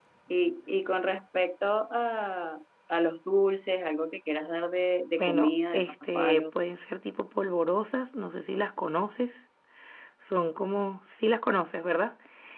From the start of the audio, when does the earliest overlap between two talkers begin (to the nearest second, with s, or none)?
5 s